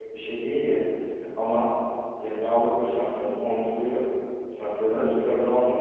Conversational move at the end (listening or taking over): listening